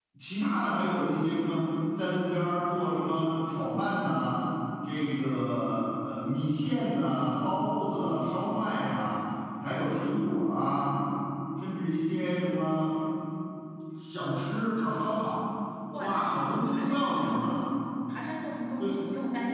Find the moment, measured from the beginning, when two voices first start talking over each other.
16.0 s

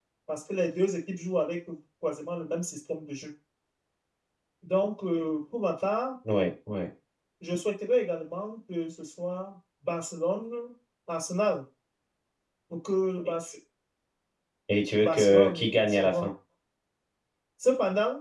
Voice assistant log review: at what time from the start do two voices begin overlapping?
15.0 s

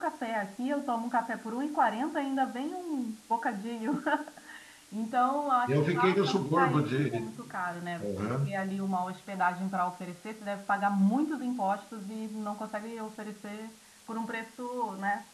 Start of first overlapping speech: 5.7 s

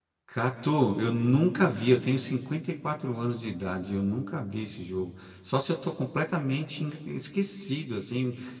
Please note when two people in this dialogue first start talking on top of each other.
none

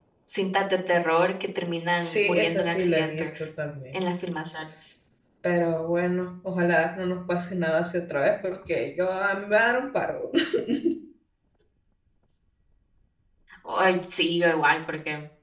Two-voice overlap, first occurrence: 2.0 s

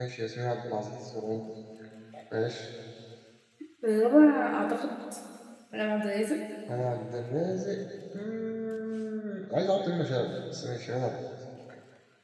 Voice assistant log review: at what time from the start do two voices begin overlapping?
none

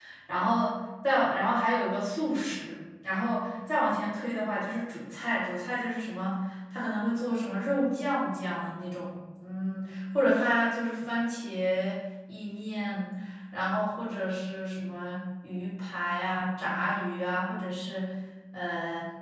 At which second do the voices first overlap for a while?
none

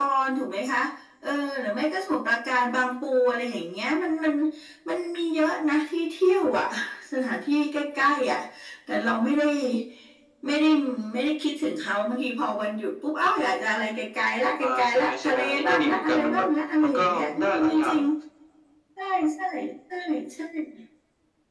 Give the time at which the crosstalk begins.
14.6 s

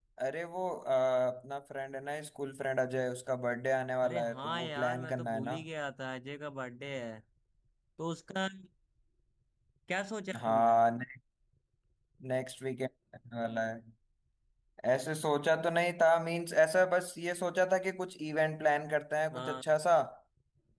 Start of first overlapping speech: 4.0 s

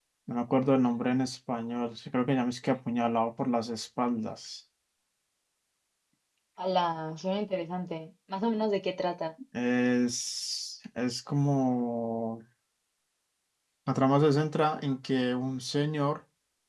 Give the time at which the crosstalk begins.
none

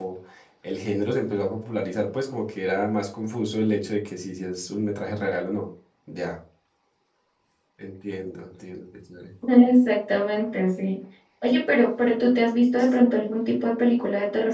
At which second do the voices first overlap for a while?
none

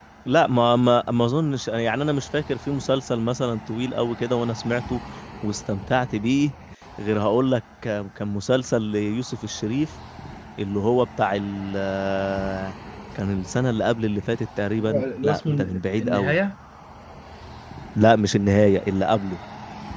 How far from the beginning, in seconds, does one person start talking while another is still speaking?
14.8 s

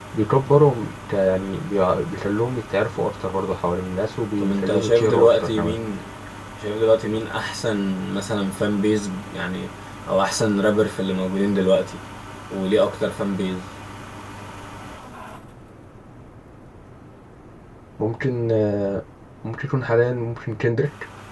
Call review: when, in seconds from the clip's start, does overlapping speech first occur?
4.4 s

